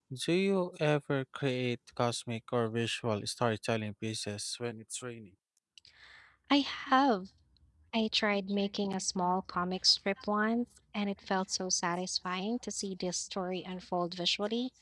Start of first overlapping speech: none

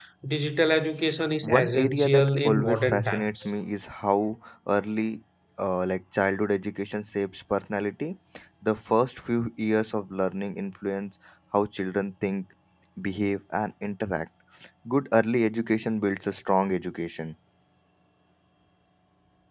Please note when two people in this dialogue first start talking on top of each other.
1.4 s

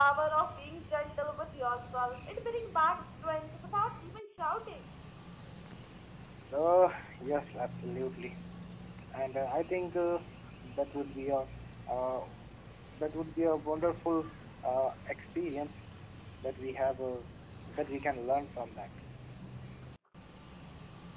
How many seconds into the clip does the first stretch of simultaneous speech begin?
none

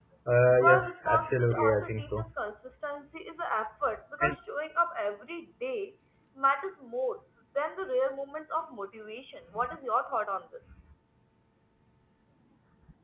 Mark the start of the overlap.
0.6 s

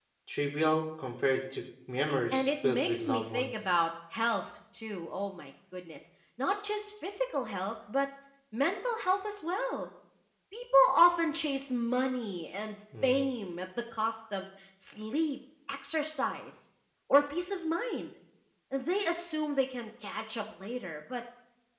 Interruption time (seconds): 2.3 s

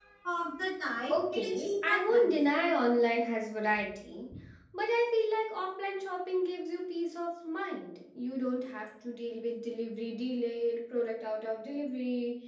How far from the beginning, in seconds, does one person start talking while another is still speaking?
1.1 s

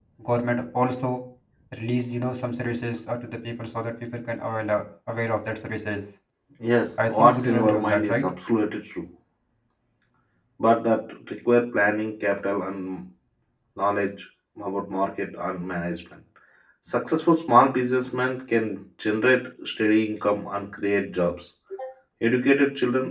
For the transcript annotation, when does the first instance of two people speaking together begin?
7.0 s

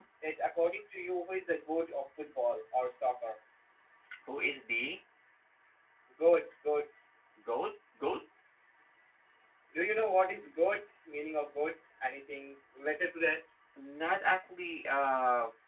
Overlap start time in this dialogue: none

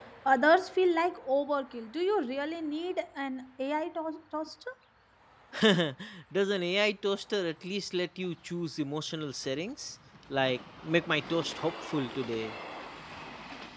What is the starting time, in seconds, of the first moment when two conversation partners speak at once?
none

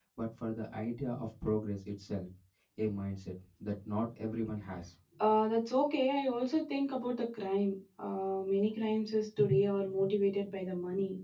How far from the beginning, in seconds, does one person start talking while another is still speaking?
none

